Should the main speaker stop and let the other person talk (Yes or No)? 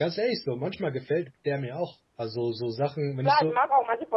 Yes